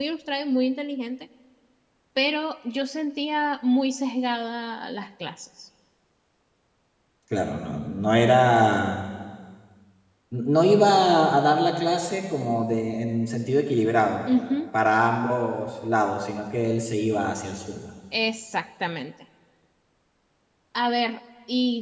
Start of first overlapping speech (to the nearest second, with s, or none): none